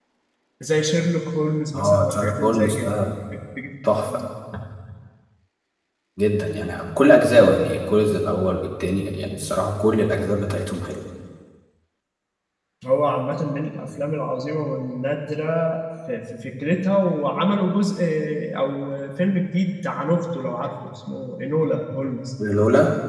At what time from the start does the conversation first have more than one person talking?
1.7 s

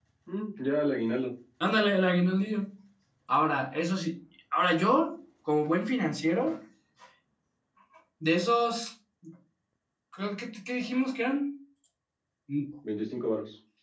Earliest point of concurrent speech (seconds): none

